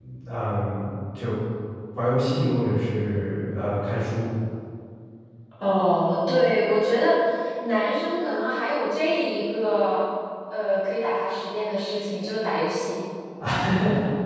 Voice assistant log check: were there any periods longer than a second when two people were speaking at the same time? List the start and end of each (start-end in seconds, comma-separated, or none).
none